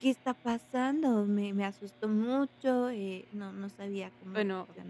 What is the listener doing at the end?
taking over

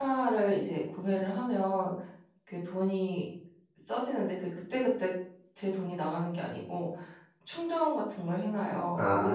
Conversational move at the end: listening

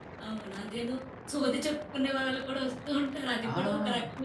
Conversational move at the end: taking over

